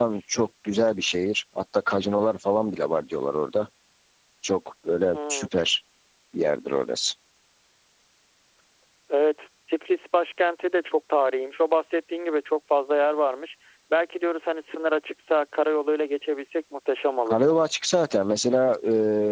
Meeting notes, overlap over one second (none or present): none